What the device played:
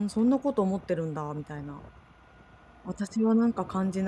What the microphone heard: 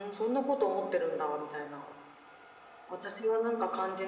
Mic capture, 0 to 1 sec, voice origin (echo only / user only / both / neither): echo only